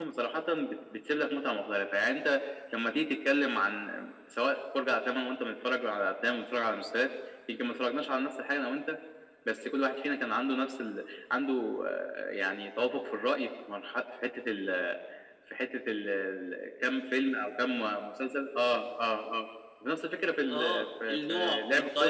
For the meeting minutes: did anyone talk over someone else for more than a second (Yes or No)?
Yes